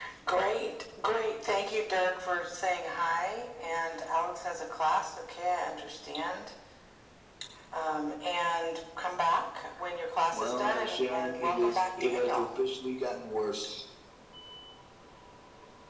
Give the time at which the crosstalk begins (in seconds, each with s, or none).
10.3 s